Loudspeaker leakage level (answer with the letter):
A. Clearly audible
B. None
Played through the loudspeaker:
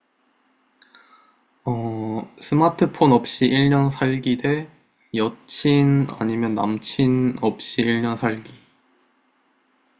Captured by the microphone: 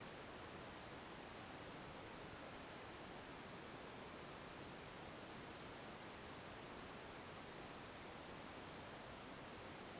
B